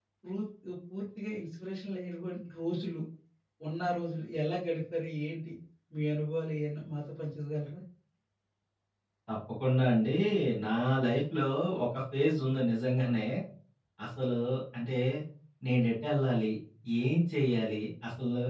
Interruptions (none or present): none